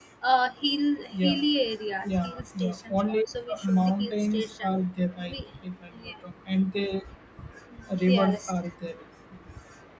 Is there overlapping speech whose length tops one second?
Yes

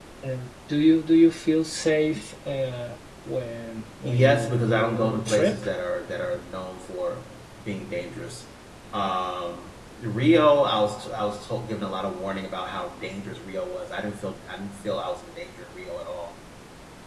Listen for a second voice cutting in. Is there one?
Yes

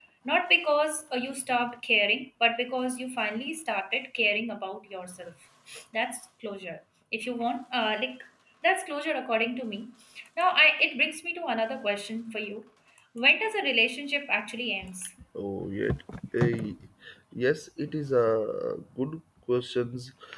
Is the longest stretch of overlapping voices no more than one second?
Yes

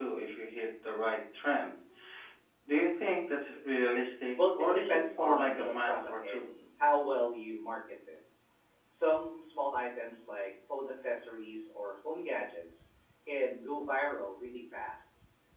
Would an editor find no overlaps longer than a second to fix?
No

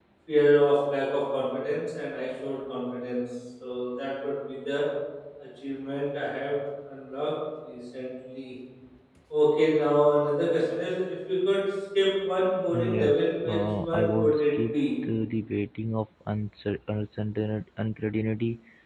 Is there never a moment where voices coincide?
No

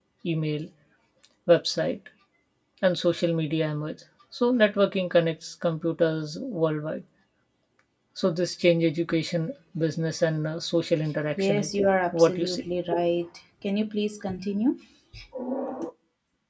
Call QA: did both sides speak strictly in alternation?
No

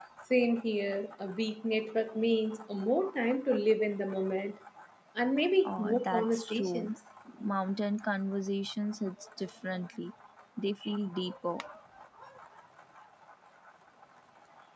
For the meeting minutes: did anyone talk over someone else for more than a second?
Yes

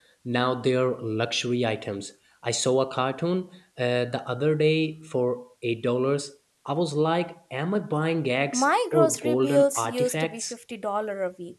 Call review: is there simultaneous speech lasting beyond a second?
Yes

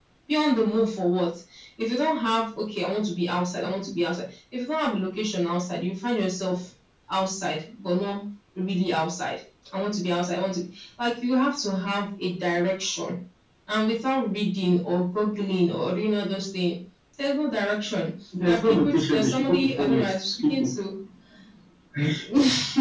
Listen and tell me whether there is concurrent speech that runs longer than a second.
Yes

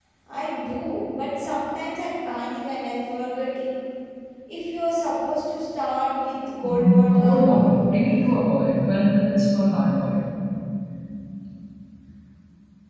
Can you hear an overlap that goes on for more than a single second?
Yes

